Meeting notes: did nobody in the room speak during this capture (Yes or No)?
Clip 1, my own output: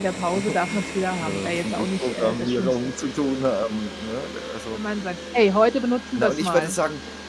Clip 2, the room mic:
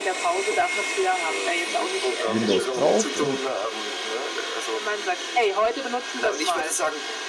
No